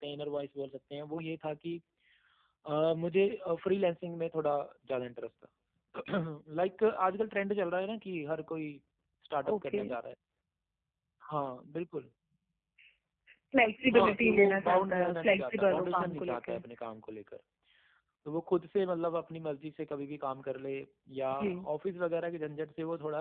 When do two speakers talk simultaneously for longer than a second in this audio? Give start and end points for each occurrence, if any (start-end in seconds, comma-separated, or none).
13.9-16.6